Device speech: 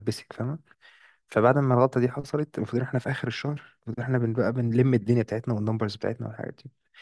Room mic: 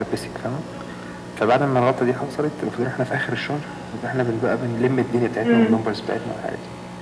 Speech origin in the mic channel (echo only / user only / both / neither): both